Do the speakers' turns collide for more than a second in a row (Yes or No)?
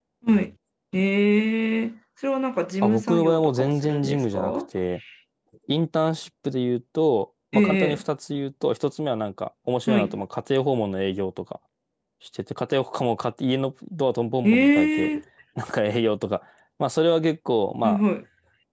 Yes